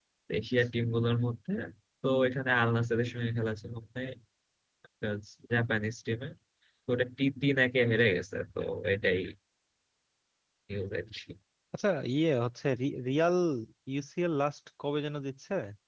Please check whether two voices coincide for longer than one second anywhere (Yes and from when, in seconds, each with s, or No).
No